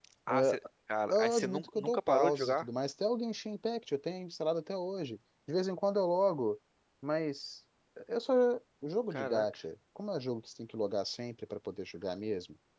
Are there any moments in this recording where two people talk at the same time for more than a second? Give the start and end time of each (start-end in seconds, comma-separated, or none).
1.1-2.6